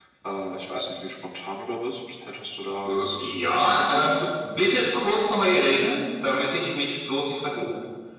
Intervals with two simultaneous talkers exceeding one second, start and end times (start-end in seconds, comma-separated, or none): 2.8-4.2